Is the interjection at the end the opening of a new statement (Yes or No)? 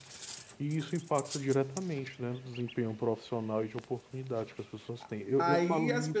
Yes